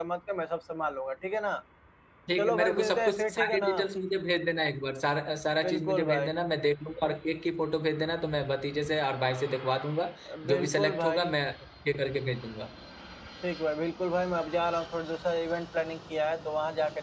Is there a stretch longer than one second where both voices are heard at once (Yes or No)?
Yes